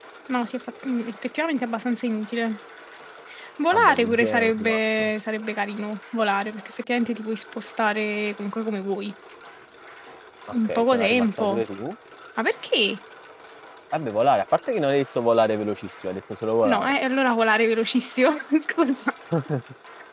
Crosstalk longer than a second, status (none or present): present